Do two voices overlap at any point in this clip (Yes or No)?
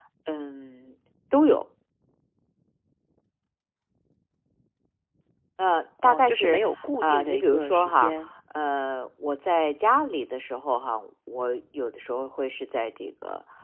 Yes